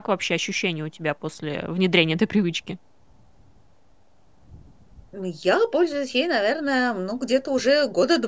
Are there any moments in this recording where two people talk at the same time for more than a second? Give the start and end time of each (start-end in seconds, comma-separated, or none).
none